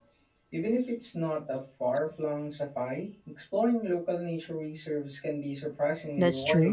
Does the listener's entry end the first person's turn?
Yes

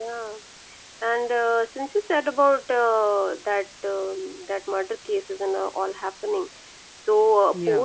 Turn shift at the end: No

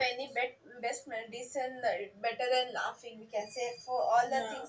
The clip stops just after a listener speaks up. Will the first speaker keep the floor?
Yes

